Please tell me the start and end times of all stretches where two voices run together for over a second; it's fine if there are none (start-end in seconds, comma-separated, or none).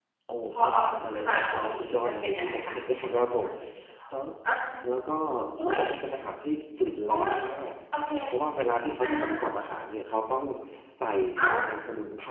1.0-2.8